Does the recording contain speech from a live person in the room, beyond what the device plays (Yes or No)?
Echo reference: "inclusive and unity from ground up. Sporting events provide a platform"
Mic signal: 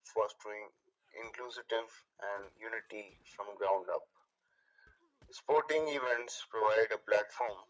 No